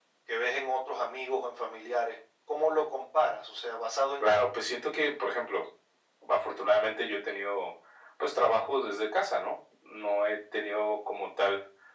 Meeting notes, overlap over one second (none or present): none